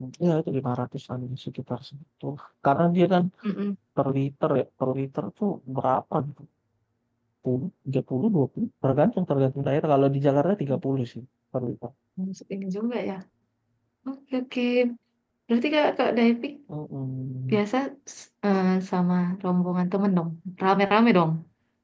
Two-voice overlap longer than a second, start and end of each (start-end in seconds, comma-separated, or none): none